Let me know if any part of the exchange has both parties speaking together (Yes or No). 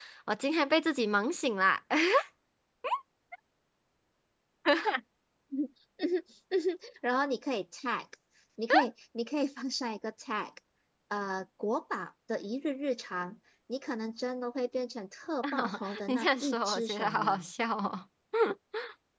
Yes